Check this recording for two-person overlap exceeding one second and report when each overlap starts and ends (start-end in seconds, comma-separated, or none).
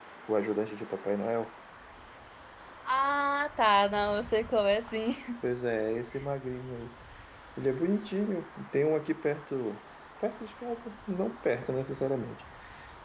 none